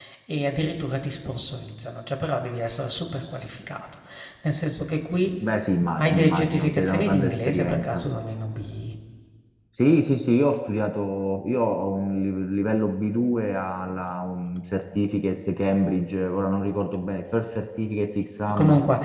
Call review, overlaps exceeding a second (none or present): present